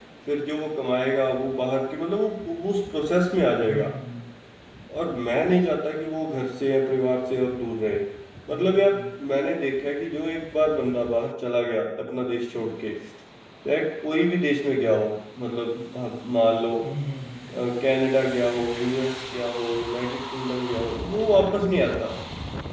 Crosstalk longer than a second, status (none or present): none